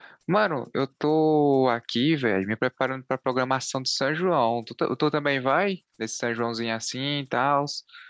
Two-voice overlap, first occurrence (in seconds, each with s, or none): none